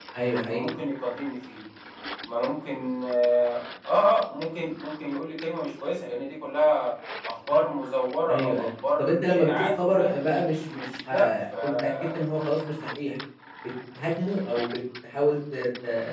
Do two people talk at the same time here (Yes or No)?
Yes